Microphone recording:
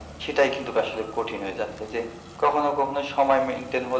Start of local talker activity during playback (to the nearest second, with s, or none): none